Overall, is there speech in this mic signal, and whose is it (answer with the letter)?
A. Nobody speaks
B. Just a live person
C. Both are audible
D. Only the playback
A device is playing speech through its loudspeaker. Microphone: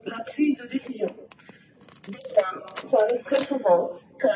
D